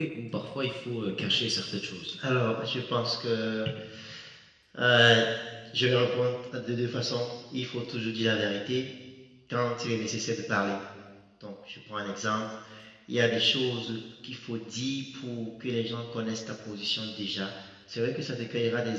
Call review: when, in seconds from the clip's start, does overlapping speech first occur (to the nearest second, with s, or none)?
none